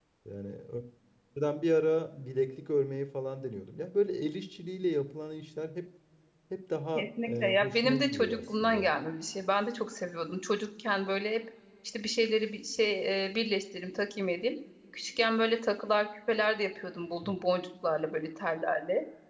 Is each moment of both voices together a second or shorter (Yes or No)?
No